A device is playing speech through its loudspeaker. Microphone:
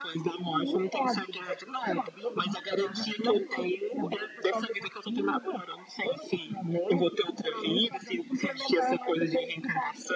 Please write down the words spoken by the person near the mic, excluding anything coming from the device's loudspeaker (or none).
none